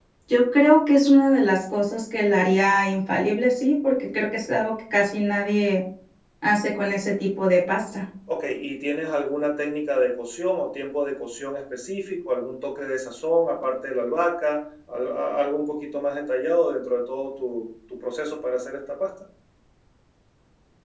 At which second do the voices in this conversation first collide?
none

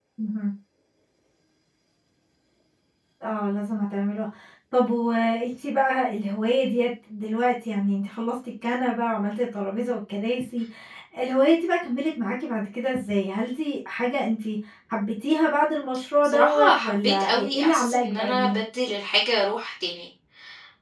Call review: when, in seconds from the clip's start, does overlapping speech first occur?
16.2 s

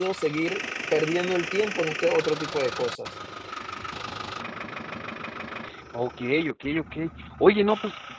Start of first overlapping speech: none

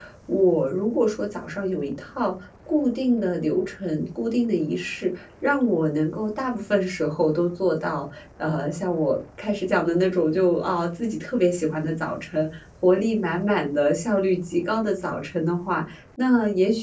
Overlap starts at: none

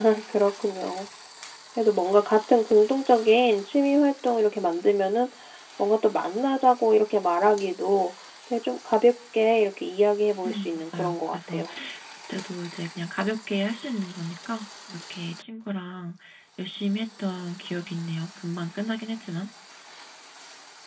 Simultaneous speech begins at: 10.4 s

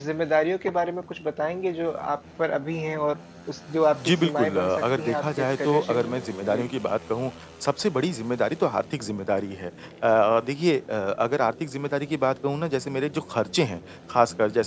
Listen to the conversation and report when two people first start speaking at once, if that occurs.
3.9 s

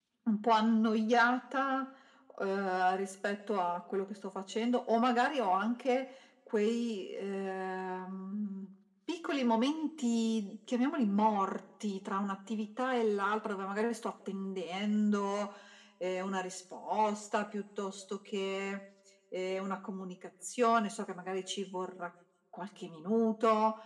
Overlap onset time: none

